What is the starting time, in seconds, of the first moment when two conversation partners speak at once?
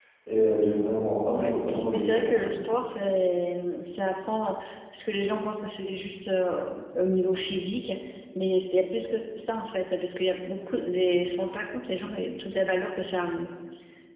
1.3 s

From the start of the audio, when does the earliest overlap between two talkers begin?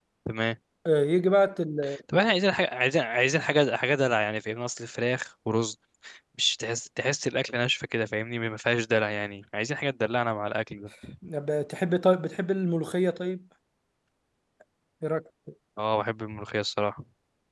none

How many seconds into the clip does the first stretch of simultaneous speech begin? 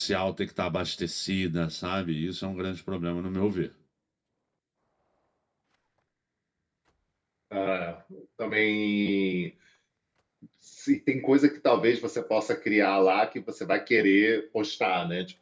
none

